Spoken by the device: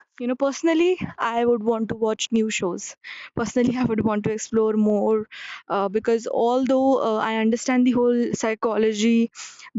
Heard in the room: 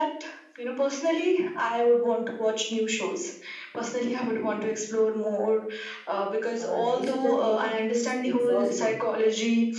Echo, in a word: present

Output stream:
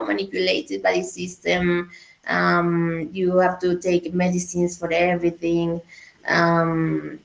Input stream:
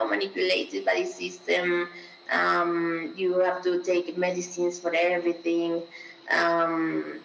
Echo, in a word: present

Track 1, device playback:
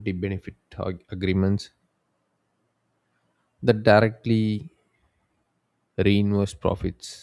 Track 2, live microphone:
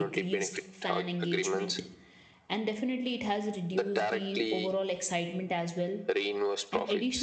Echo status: present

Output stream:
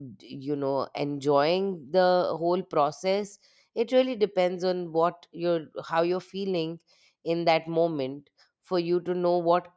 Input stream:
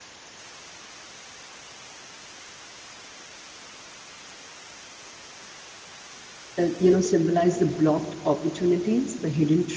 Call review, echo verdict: none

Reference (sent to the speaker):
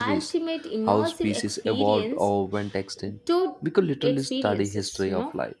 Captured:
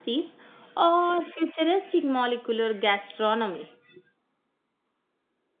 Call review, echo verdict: none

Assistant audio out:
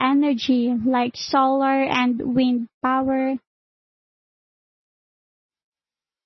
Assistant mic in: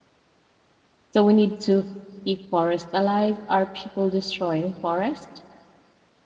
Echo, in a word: none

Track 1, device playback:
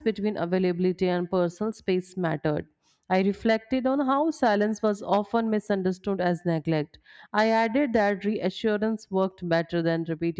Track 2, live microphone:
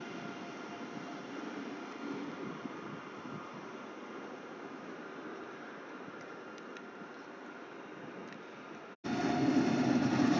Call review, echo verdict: none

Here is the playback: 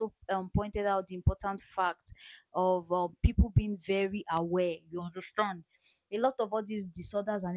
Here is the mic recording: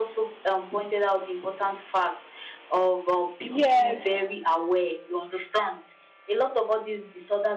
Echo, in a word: present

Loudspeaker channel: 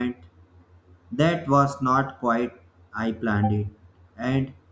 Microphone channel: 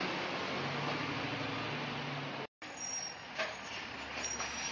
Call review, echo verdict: none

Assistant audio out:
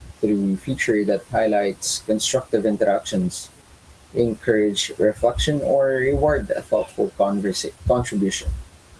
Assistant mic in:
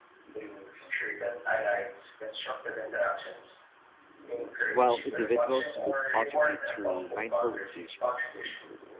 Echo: present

